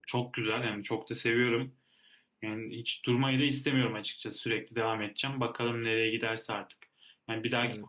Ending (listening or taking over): listening